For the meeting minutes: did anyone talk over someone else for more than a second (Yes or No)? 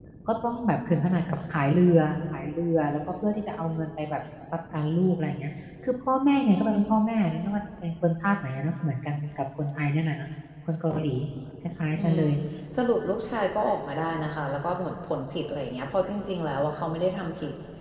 No